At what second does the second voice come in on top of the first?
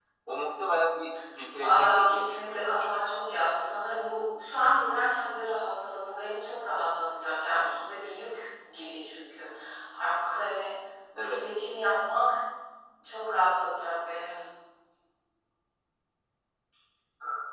1.6 s

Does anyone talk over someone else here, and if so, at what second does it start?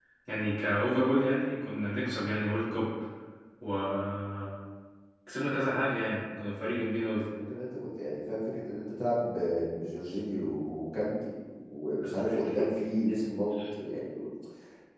none

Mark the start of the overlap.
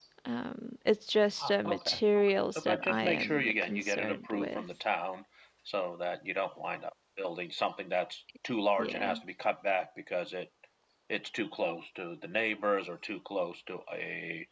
1.4 s

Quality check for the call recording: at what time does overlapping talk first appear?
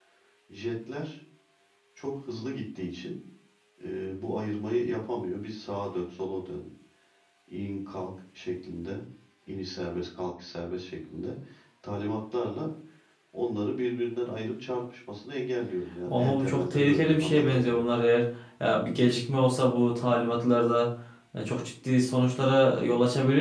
16.1 s

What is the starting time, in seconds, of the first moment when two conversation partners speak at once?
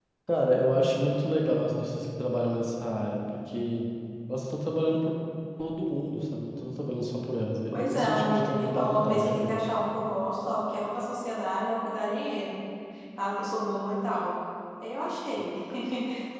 7.7 s

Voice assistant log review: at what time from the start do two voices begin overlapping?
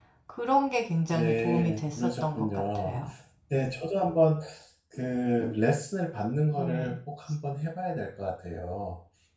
1.1 s

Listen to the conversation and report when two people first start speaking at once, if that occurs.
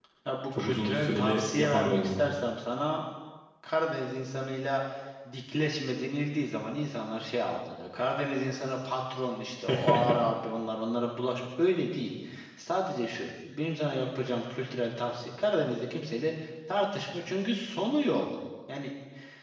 0.6 s

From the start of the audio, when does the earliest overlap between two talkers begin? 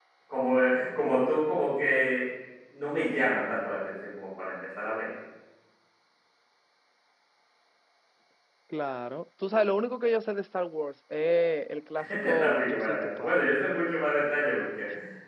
12.0 s

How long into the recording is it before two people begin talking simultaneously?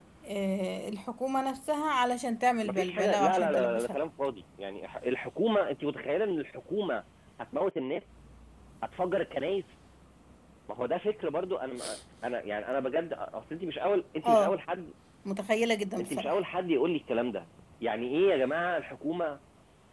2.6 s

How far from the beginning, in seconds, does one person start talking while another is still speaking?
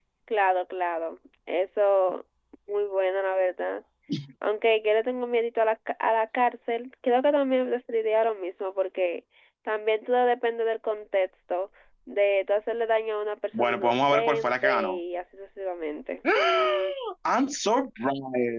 13.5 s

